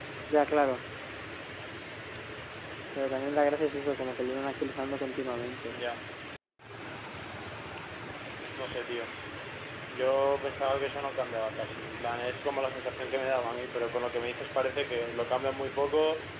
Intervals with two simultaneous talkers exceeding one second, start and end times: none

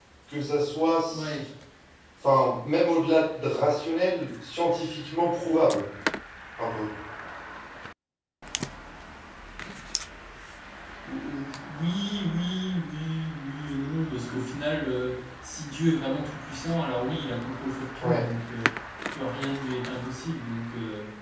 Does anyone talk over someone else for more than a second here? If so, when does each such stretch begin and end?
none

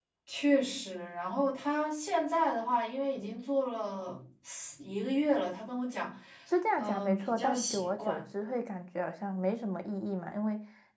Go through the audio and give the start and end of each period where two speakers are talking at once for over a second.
6.8-8.2

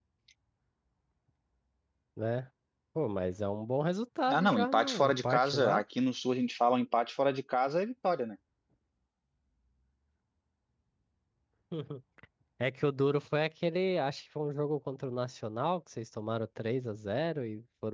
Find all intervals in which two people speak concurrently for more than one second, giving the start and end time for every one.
4.3-5.8

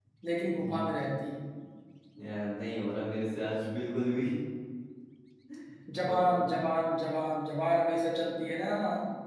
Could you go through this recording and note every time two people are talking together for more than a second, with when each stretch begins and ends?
none

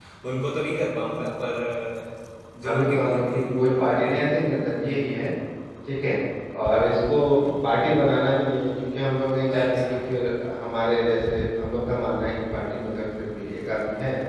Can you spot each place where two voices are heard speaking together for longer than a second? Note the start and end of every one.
2.6-4.5

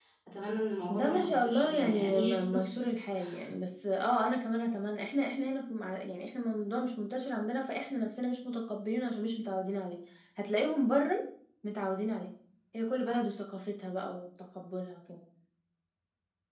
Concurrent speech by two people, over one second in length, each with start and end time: 0.9-2.4

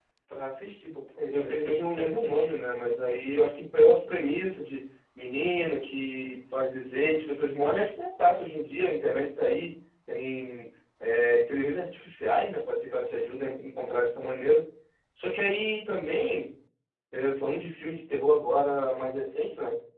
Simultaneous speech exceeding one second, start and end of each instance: 1.3-2.5

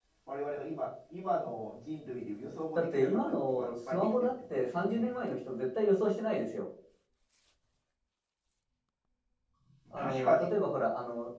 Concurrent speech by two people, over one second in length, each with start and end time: 2.8-5.1

